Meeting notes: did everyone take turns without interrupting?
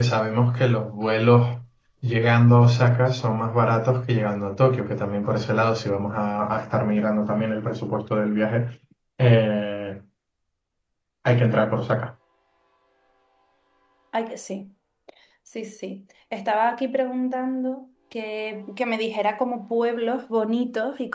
Yes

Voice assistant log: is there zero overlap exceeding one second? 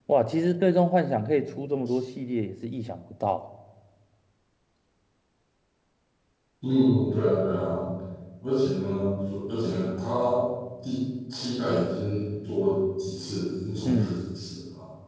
Yes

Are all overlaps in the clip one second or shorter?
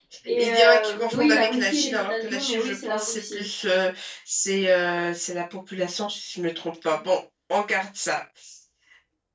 No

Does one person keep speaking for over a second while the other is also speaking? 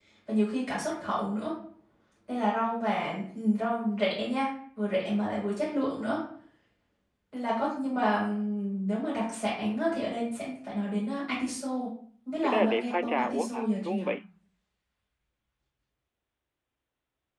Yes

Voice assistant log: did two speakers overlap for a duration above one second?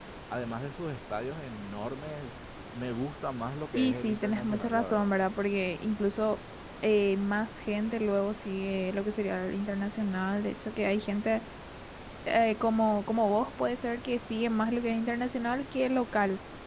Yes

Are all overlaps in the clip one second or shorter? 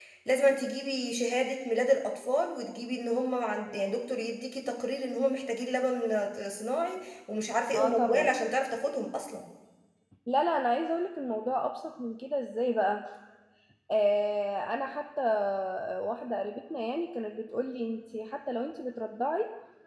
Yes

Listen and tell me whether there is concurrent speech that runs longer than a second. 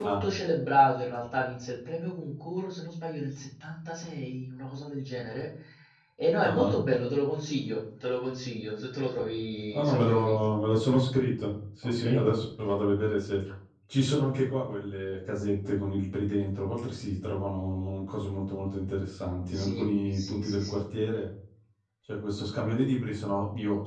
Yes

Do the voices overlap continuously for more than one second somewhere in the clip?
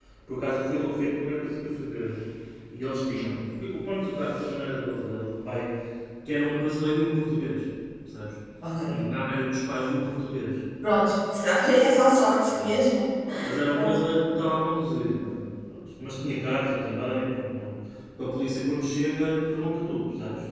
No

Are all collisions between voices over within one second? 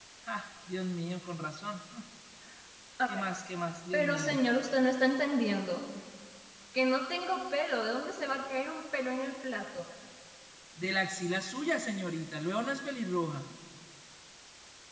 Yes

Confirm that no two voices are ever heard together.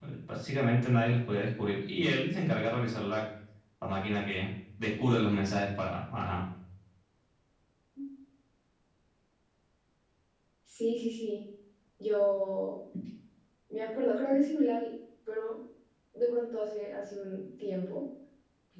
Yes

